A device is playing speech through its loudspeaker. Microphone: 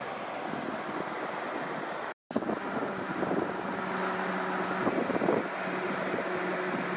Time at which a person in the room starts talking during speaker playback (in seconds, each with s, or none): none